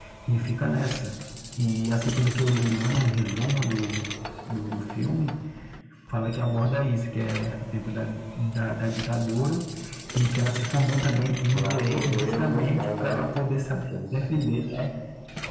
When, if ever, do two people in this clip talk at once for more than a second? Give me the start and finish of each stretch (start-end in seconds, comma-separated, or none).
11.5-13.2